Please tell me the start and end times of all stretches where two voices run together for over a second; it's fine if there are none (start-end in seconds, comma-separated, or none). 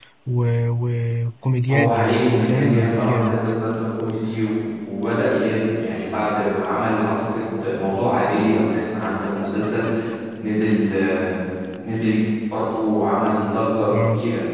1.7-3.4